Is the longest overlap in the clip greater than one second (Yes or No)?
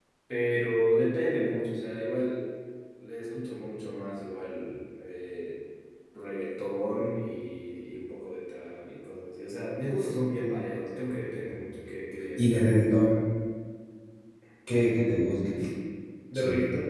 No